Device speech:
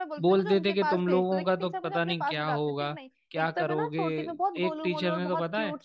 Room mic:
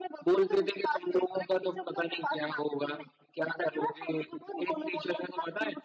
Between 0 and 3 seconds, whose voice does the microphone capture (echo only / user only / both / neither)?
echo only